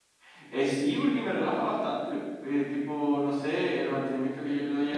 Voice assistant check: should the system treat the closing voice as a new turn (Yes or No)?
No